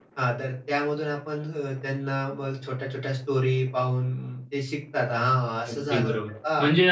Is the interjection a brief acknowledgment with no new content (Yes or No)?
No